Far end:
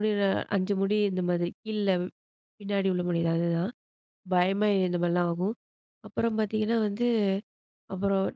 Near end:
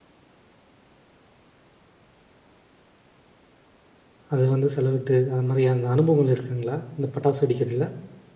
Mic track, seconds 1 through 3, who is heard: neither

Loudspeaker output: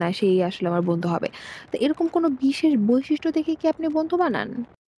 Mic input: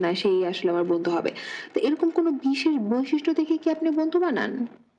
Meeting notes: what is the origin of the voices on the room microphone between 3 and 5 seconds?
echo only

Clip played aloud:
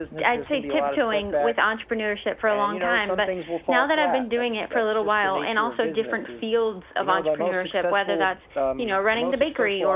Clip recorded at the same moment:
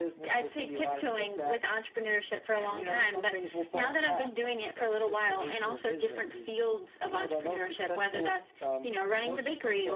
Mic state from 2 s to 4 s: echo only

